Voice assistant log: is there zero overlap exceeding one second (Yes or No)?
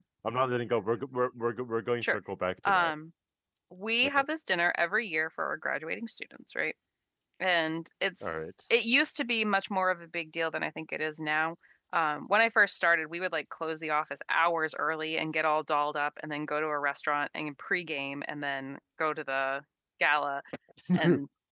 Yes